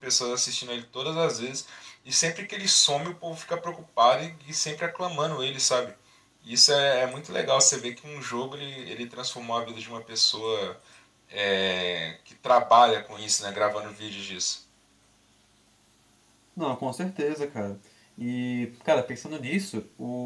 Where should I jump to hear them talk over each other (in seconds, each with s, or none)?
none